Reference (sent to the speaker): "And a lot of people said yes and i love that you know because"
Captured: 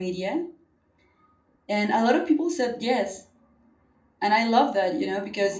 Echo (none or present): present